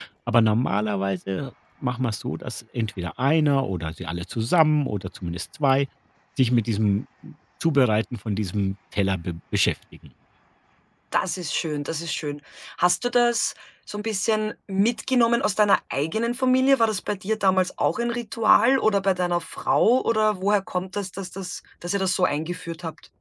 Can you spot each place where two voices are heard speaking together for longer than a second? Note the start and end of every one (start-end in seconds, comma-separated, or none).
none